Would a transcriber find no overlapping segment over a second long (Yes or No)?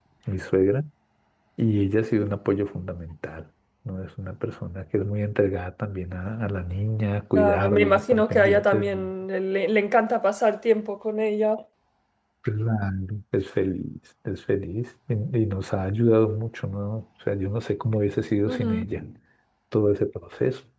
No